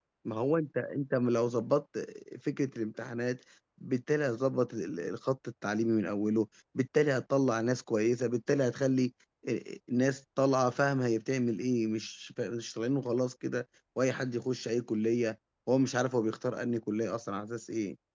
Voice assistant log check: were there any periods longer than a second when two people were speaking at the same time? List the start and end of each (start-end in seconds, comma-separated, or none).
none